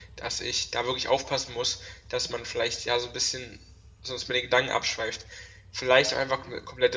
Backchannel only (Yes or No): Yes